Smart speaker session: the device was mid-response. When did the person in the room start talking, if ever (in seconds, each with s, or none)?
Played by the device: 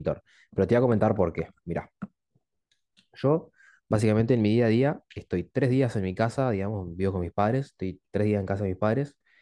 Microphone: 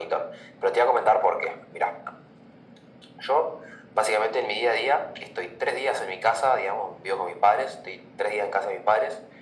none